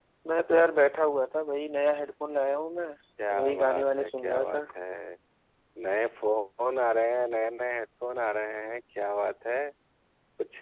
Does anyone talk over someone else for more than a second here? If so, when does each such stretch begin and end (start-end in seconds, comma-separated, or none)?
3.3-4.6